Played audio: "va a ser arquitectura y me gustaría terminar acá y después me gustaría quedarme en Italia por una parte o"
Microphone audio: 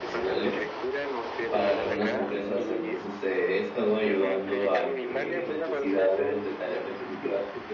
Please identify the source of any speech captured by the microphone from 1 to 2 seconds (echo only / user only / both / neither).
both